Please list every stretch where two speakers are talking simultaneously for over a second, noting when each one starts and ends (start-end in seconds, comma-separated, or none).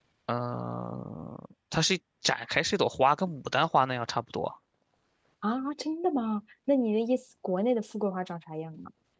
none